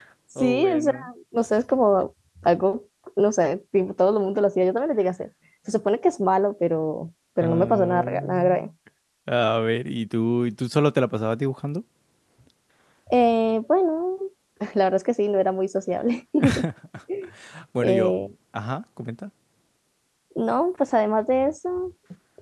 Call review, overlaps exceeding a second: present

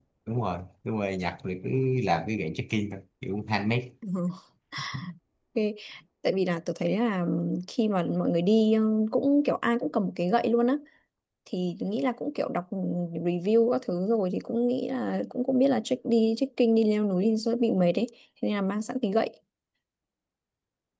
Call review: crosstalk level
none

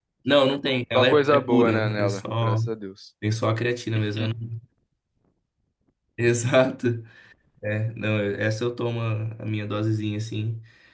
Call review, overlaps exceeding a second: present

